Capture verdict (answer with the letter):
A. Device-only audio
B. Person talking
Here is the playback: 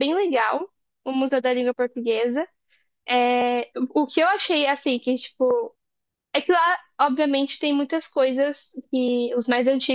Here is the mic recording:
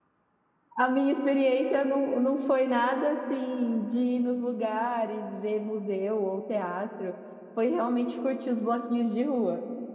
B